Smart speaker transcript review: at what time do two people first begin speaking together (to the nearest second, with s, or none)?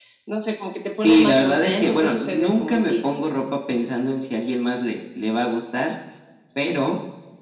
1 s